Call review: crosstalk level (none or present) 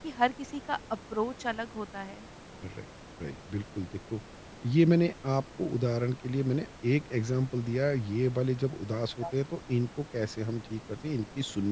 none